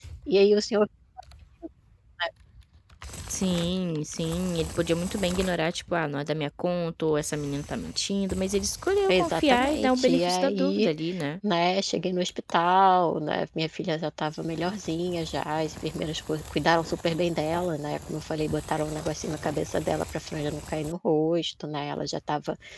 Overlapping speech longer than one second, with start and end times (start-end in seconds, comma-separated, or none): 9.1-10.9